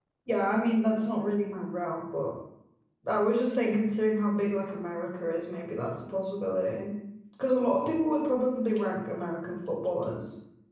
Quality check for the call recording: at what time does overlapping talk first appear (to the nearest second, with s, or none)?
none